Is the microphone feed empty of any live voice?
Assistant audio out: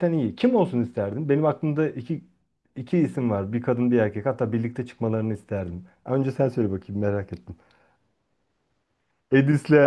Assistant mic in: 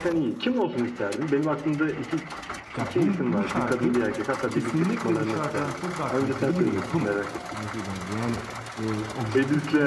No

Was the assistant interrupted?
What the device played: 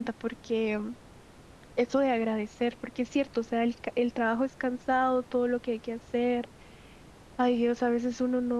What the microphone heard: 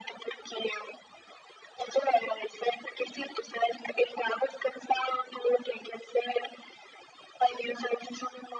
No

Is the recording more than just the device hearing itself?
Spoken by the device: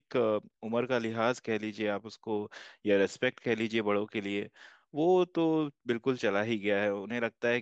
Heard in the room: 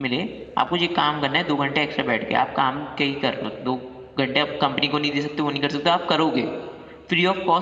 Yes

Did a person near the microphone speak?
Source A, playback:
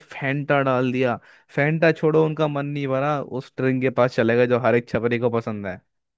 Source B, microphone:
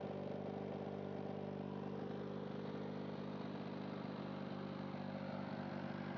No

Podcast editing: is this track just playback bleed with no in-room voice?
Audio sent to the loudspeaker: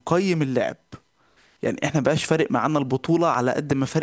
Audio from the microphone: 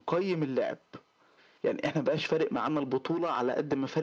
Yes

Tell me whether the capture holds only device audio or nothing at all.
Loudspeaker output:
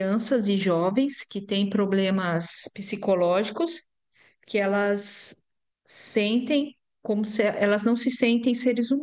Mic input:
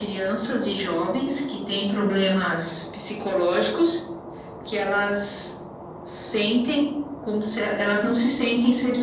Yes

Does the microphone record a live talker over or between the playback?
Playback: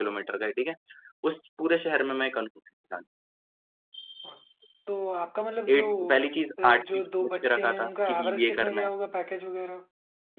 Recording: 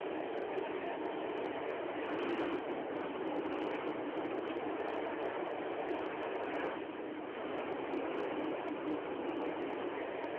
No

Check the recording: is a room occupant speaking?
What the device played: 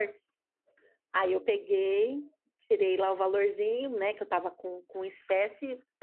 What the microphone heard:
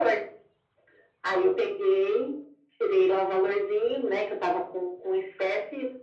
No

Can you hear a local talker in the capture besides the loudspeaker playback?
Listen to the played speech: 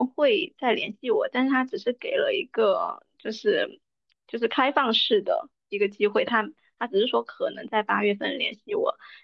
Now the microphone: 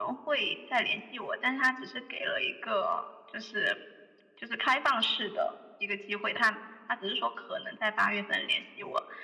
No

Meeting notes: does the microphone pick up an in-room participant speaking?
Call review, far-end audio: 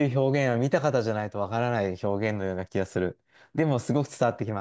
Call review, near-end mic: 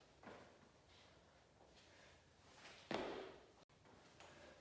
No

